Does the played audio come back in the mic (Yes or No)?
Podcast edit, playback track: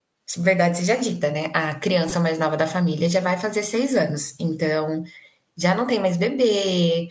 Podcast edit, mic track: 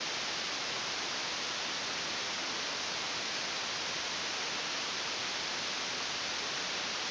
No